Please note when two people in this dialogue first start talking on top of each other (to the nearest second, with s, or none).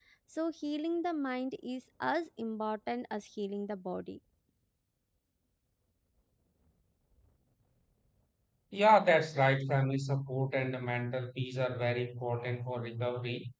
none